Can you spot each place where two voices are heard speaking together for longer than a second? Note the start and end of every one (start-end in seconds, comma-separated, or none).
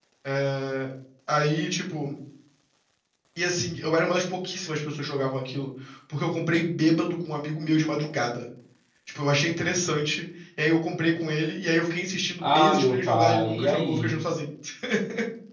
12.4-14.2